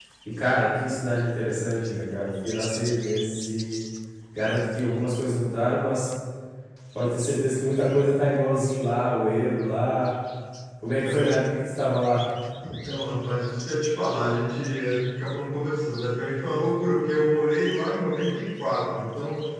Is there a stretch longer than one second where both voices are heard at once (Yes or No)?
No